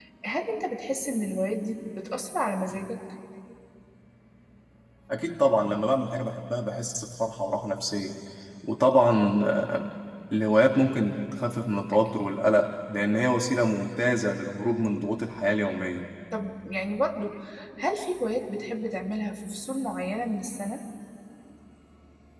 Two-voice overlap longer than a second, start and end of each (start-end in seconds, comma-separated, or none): none